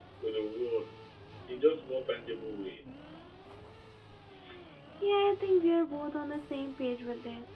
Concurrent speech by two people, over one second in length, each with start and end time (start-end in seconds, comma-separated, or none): none